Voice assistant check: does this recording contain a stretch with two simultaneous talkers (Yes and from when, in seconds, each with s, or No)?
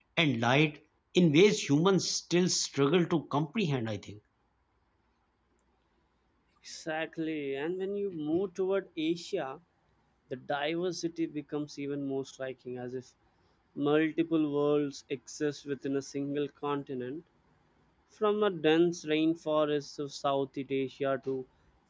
No